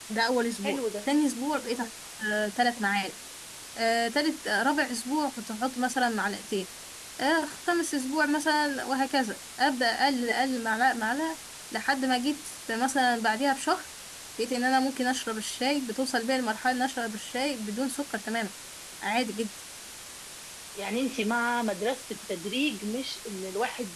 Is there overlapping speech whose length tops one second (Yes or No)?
No